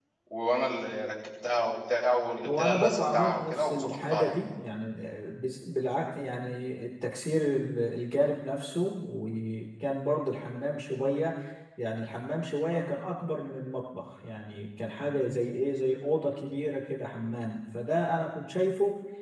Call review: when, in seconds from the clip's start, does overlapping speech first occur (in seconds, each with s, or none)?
2.4 s